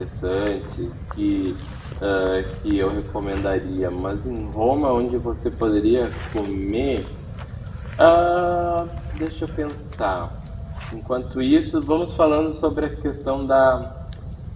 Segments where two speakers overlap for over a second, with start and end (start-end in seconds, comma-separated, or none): none